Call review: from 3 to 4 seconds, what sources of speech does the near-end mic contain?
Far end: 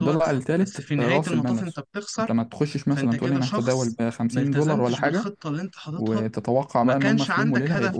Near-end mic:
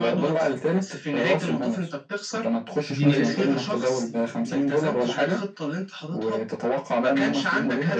both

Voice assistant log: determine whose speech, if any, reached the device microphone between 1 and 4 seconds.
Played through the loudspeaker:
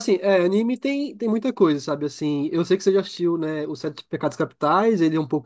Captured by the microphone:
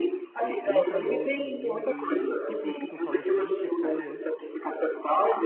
both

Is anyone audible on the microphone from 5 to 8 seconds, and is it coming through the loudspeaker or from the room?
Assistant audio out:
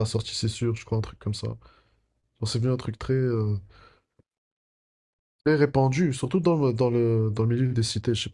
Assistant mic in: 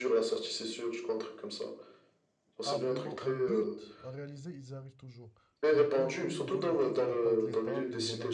both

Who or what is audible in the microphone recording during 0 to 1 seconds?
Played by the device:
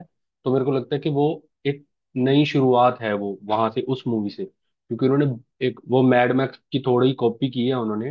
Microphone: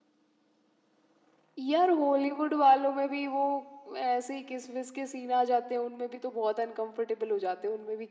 neither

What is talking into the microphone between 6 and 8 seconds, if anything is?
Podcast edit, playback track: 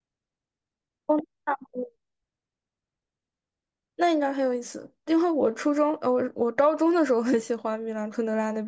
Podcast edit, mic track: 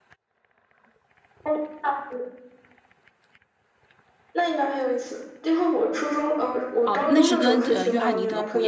both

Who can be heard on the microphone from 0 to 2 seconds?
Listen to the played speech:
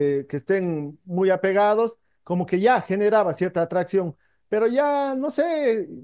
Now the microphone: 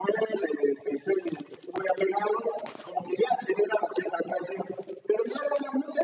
echo only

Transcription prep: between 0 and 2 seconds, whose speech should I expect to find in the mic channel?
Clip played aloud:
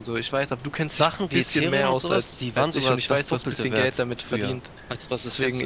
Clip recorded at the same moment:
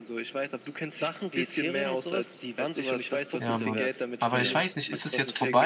echo only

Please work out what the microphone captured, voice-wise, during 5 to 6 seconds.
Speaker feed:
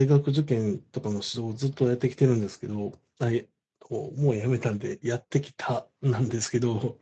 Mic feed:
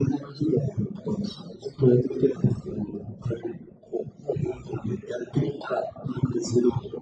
echo only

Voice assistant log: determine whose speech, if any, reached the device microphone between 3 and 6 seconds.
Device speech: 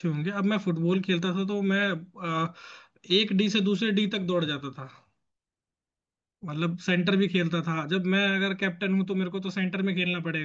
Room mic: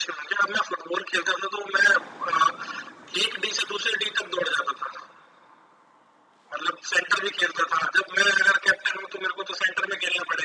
echo only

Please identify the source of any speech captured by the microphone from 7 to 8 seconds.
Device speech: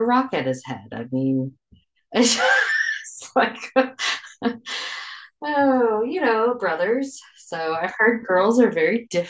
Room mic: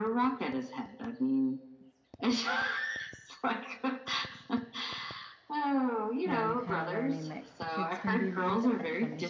both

